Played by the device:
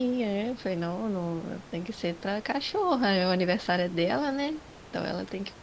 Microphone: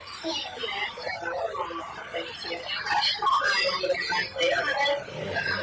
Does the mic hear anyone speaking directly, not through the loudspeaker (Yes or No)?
Yes